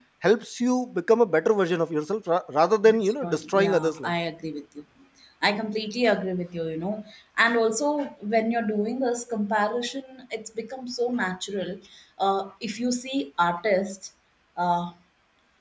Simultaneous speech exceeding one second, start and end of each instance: 2.9-4.1

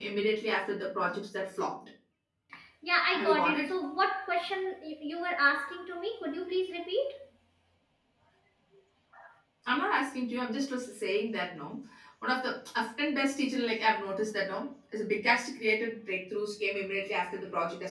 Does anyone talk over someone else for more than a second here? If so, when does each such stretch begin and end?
none

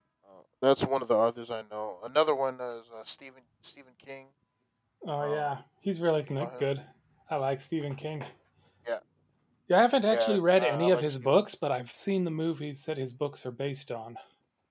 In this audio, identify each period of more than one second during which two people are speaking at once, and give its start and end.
10.1-11.3

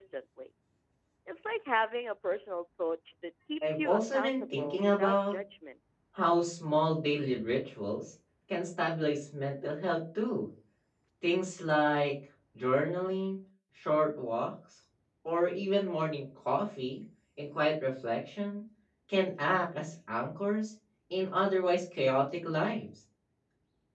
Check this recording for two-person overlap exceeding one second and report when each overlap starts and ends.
3.7-5.3

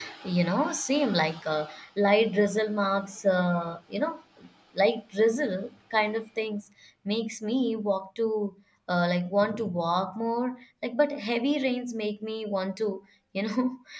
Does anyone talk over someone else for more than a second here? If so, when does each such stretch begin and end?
none

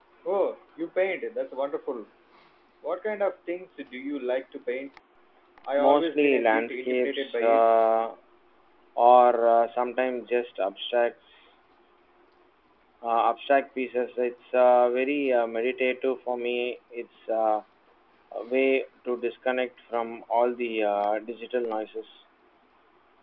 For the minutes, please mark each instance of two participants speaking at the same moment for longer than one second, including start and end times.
5.8-7.6

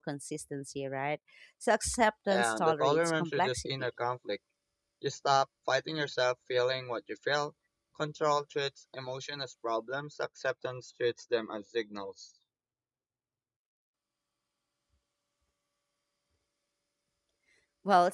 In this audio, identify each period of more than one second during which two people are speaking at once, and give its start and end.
2.3-3.9

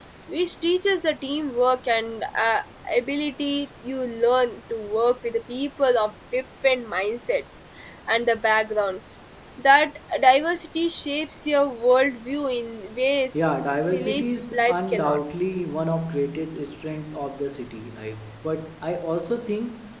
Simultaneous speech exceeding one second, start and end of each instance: 13.9-15.2

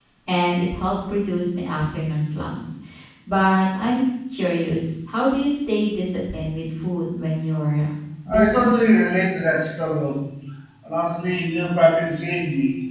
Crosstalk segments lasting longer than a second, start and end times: none

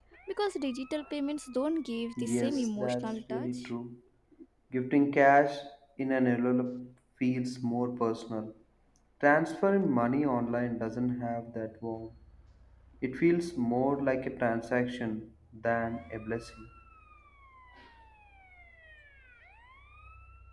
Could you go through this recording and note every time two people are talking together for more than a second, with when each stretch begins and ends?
2.2-3.7

